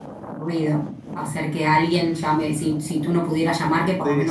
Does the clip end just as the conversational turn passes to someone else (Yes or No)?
Yes